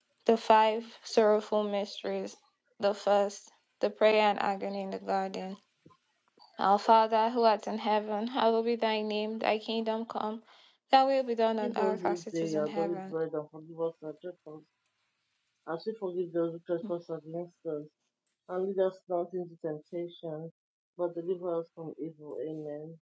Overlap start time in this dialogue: 12 s

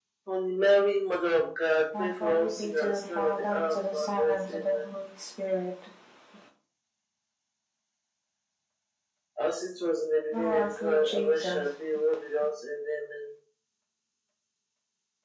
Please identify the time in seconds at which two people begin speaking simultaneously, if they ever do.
2 s

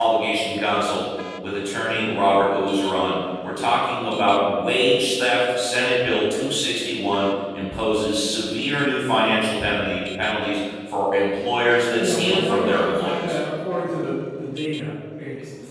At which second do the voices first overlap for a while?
12 s

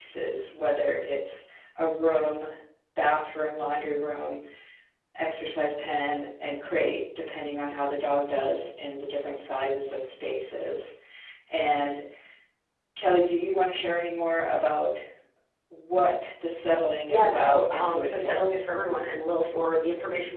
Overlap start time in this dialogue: 17 s

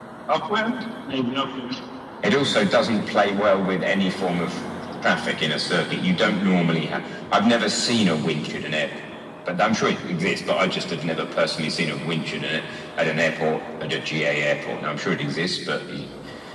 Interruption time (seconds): none

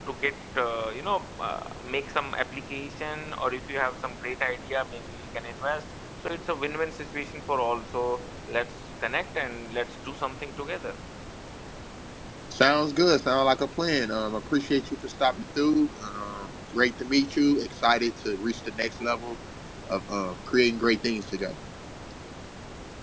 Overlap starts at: none

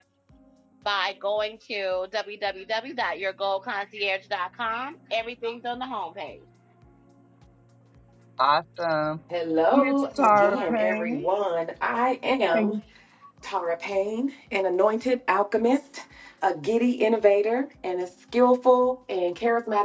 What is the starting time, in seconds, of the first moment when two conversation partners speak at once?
10 s

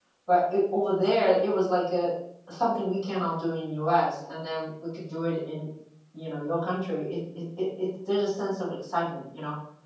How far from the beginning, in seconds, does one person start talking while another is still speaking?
none

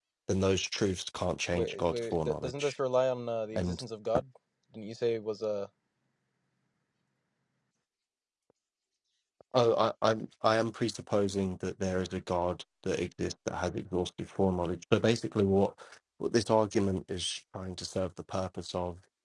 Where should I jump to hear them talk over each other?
2 s

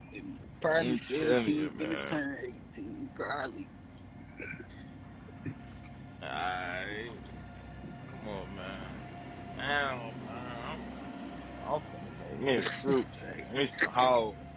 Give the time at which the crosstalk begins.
1 s

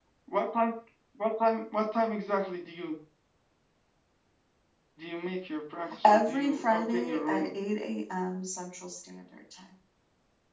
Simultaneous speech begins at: 6 s

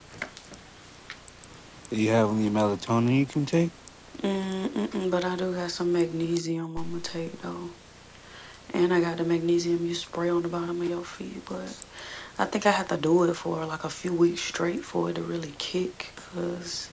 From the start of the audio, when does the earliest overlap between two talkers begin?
none

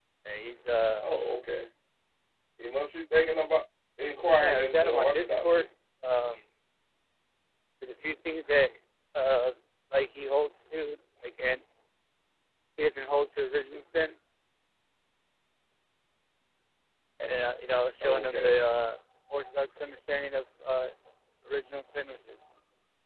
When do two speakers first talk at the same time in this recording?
4 s

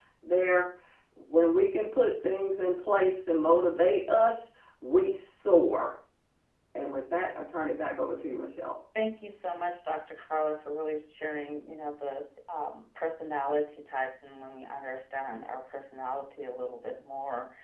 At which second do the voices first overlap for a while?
none

